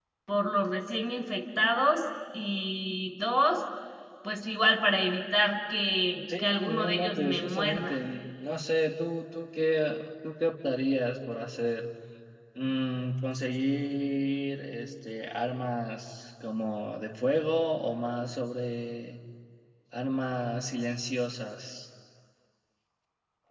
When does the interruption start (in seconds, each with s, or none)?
6.3 s